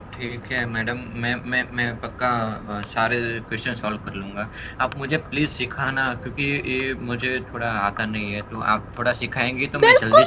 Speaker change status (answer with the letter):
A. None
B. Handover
B